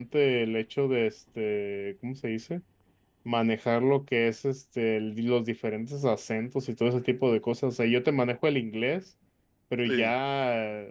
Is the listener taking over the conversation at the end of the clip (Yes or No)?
No